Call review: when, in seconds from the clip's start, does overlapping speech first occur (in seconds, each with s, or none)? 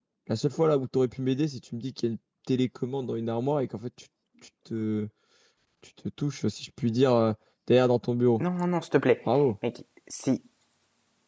none